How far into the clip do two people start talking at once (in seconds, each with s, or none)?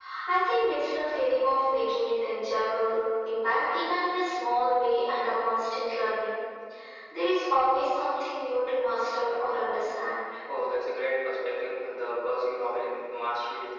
none